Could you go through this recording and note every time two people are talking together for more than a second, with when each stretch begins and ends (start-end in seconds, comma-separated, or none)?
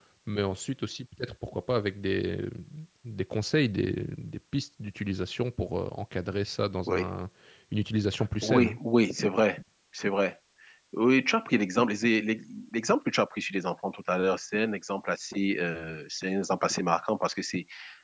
none